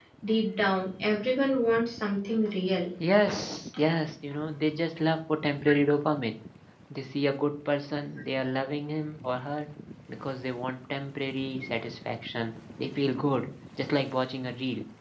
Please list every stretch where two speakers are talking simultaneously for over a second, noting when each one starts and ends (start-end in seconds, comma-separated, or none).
none